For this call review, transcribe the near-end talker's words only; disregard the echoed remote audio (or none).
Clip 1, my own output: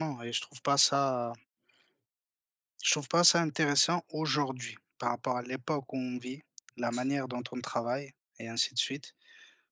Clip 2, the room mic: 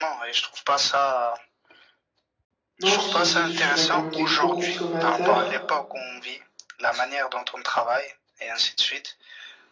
Non, je disais juste qu'on est quand même des gros consommateurs,